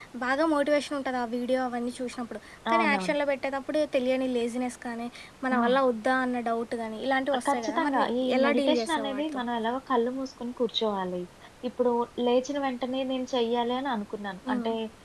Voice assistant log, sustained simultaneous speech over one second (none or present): present